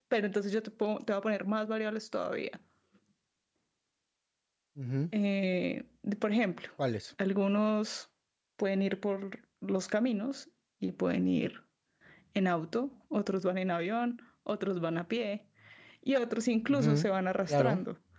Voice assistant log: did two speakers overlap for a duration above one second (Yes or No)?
No